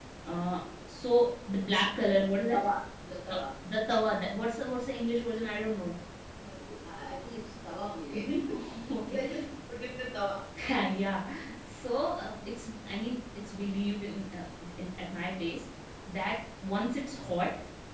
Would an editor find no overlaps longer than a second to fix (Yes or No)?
Yes